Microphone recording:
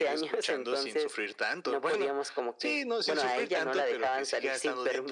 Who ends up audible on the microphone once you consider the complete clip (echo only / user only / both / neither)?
echo only